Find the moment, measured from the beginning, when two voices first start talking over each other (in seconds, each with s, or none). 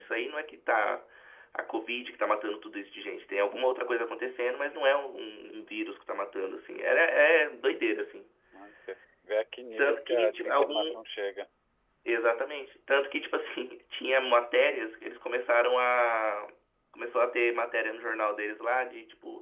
9.8 s